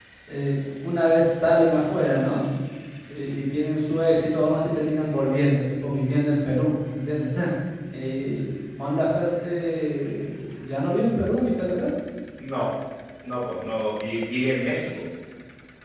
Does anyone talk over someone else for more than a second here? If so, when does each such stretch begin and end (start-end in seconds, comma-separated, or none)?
none